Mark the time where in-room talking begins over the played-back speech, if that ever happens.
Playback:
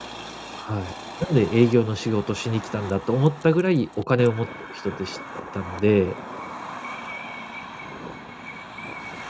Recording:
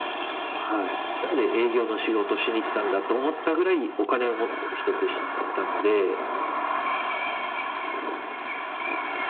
none

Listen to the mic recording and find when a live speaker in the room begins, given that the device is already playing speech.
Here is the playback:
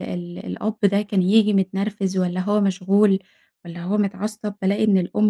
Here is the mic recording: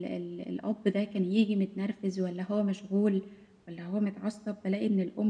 none

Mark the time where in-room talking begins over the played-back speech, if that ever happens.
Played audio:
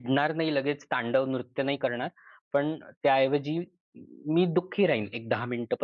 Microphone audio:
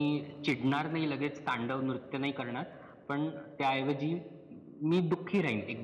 none

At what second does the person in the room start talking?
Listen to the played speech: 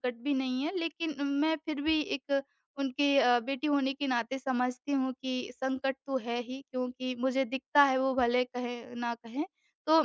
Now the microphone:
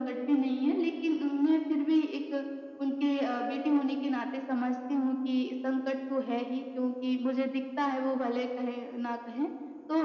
none

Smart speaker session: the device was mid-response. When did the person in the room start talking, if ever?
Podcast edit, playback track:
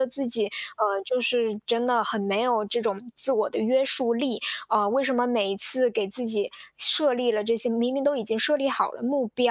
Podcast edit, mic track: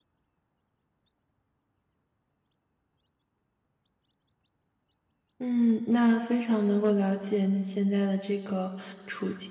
5.4 s

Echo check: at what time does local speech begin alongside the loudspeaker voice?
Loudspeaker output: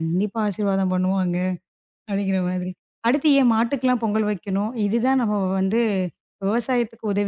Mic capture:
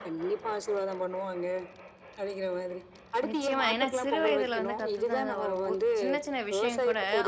3.3 s

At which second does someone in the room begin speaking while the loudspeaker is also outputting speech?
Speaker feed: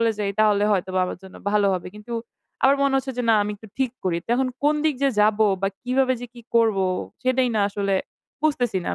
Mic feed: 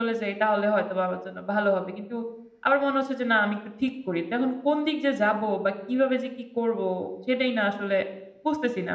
none

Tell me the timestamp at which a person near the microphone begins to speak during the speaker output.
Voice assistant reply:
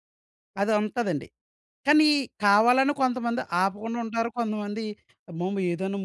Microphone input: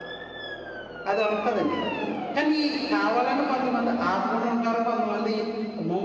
none

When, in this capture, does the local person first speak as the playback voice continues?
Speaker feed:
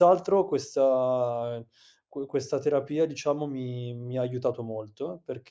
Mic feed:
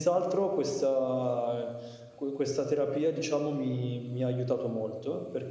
none

